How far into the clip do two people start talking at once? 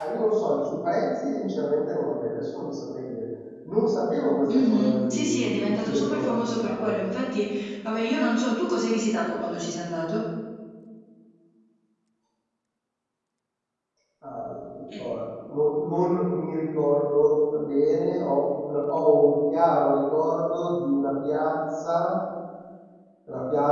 4.5 s

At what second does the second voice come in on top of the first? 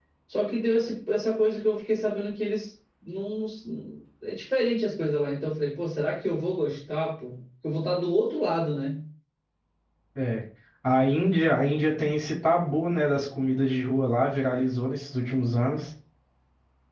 none

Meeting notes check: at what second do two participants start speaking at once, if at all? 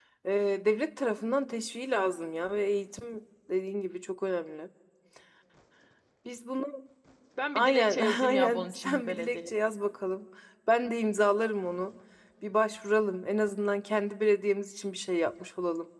7.5 s

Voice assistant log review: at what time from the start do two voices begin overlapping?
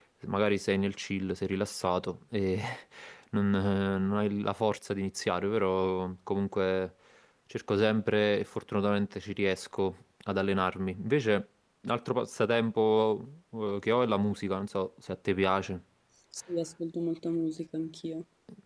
none

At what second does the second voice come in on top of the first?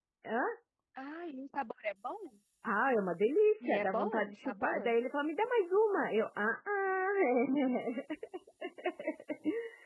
3.6 s

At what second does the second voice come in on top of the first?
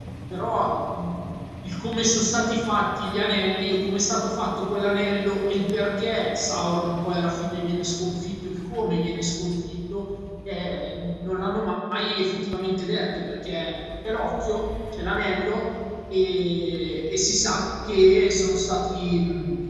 none

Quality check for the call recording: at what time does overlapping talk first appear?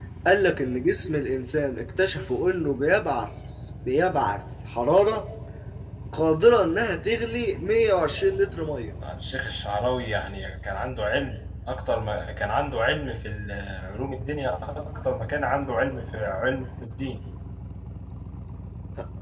none

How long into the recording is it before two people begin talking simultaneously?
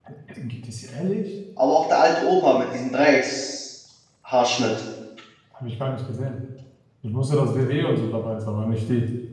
none

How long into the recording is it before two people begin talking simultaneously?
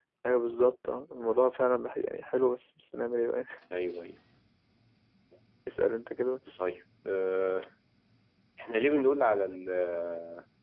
none

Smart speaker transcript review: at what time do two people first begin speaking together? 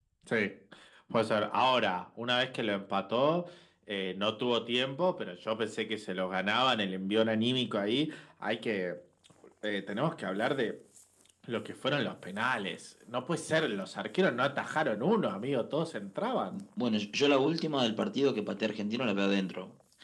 none

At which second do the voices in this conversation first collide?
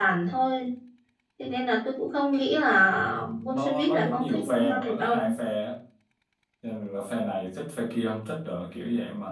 3.5 s

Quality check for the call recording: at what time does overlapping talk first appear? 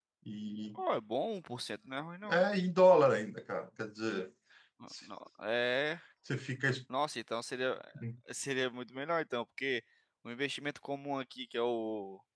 none

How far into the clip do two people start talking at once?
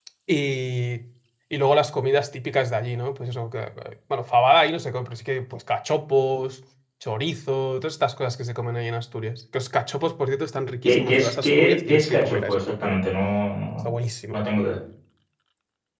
10.8 s

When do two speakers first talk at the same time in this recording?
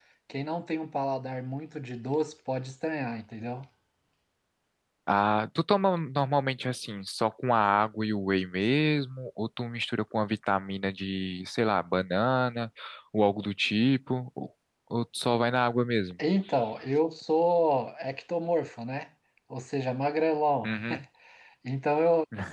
none

